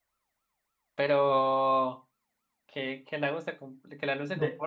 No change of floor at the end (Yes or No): Yes